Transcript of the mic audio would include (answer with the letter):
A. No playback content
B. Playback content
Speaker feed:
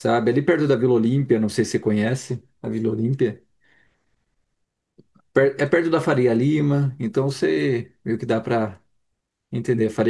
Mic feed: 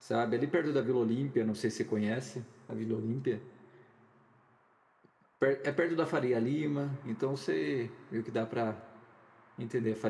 B